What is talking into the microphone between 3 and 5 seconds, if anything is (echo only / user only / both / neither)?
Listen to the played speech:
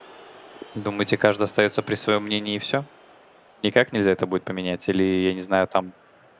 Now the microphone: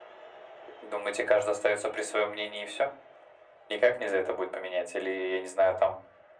echo only